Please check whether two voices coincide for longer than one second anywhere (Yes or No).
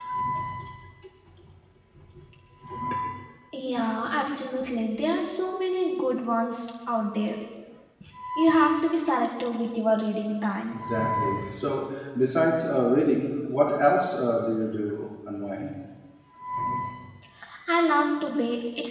No